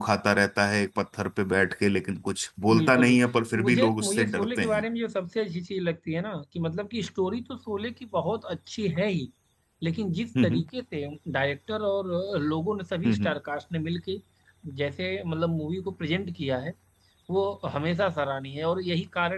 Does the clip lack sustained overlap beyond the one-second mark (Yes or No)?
No